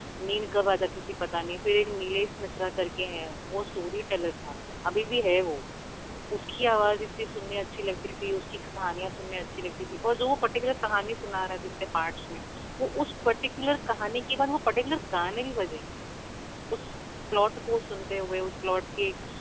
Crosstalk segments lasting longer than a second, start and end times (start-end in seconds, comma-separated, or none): none